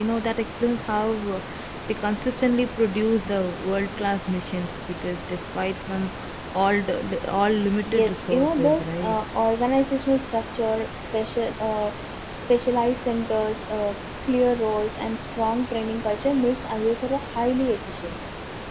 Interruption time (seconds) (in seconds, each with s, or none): 7.8 s